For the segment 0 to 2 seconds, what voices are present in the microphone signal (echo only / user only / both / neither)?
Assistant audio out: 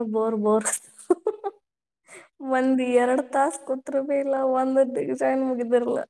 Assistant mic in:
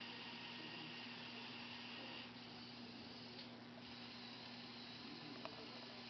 neither